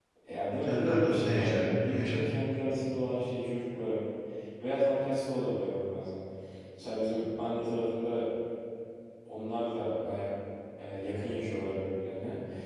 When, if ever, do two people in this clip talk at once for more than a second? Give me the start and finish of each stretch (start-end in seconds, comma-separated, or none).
0.6-2.2